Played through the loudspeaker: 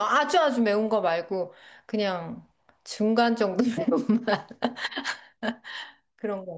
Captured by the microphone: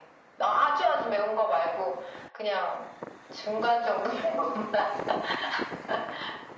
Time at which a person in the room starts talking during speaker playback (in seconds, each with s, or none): none